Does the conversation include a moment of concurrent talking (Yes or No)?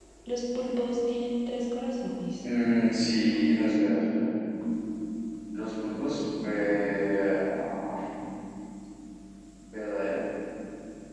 No